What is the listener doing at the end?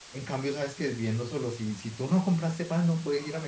taking over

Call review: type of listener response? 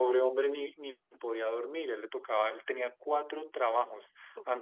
listening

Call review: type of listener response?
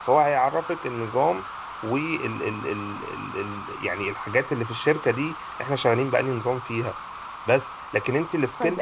taking over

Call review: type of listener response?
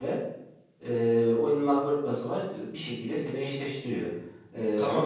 taking over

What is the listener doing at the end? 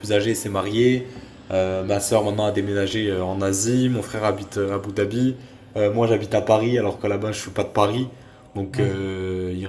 listening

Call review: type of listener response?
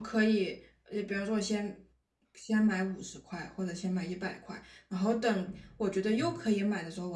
listening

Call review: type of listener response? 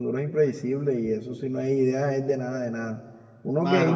listening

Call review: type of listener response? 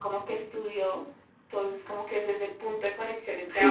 taking over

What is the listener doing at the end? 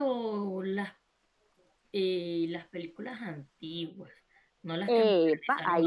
taking over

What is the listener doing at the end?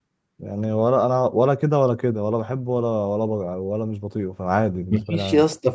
taking over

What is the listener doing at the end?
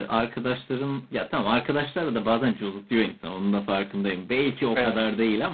listening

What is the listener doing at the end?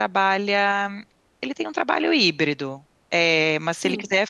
listening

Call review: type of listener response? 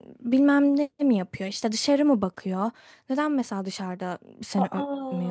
listening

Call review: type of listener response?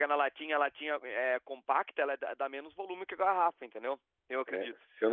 taking over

